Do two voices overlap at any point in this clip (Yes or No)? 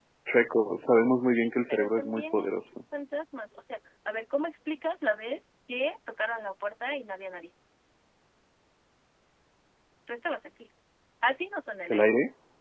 Yes